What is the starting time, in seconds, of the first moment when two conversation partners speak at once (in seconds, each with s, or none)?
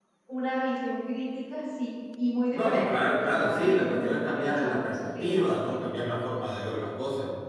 2.5 s